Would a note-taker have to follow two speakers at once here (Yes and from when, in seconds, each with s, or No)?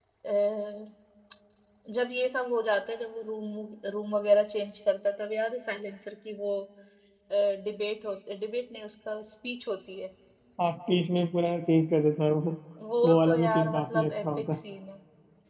Yes, from 13.0 s